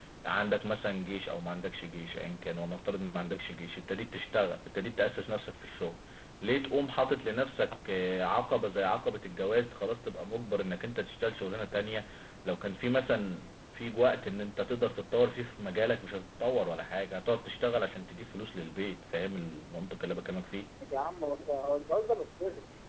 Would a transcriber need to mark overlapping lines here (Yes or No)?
No